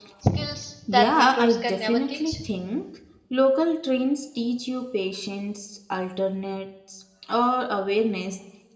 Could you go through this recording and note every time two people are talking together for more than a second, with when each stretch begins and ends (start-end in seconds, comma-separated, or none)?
0.9-2.4